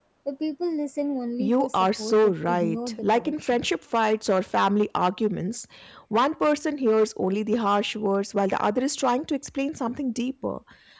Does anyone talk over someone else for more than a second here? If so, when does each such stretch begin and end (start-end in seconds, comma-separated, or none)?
1.4-3.6